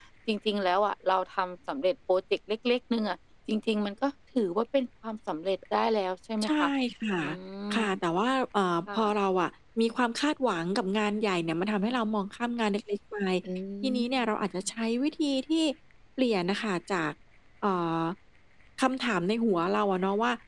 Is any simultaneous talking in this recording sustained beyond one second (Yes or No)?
No